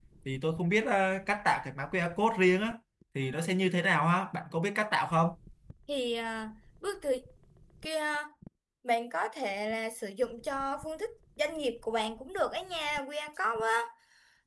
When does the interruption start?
none

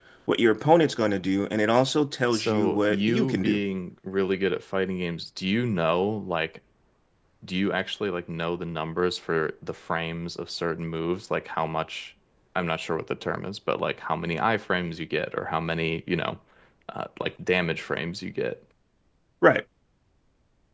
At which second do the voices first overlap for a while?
2 s

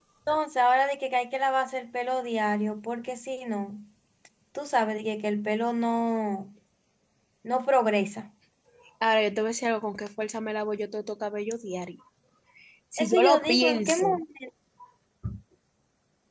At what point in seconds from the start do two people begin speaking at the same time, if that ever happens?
13 s

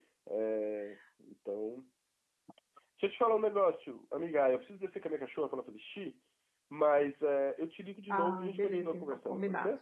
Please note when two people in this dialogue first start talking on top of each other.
8 s

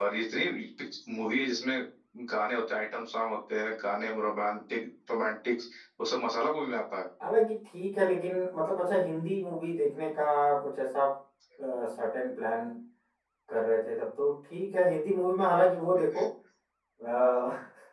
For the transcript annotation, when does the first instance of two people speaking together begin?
none

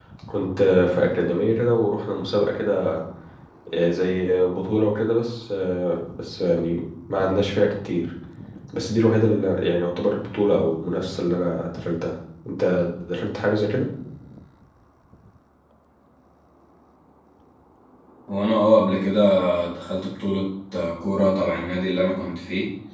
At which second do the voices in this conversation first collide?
none

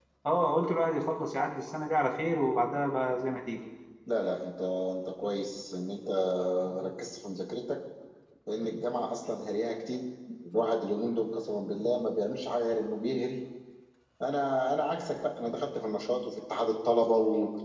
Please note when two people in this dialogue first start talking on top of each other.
none

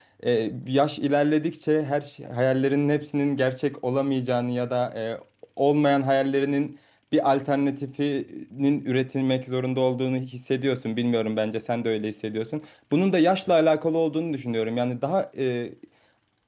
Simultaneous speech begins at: none

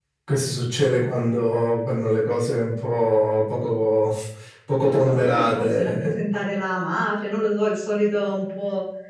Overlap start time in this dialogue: 5 s

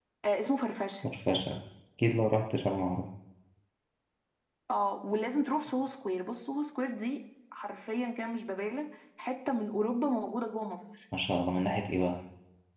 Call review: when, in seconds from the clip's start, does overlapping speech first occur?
none

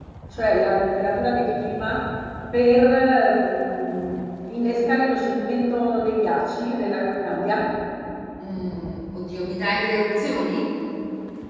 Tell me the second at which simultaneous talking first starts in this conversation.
none

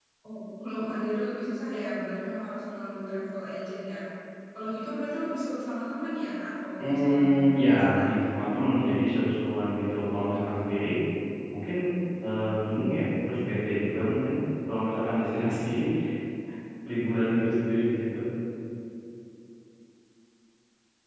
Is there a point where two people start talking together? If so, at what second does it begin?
7 s

